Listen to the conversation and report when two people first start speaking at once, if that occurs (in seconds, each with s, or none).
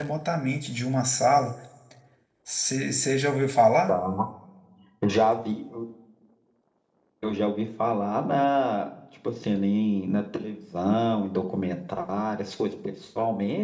none